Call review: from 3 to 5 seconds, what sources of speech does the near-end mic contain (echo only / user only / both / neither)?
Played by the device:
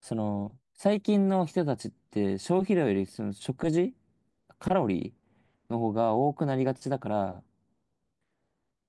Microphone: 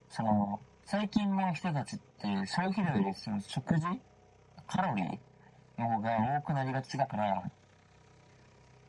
echo only